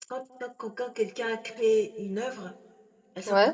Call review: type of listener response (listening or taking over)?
listening